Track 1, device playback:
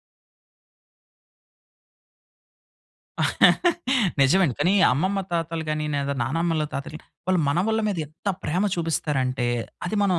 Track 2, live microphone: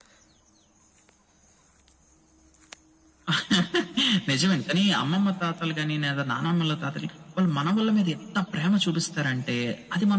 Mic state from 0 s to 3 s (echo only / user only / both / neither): neither